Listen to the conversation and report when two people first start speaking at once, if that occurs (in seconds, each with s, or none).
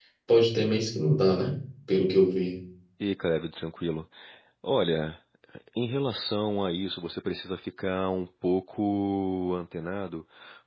none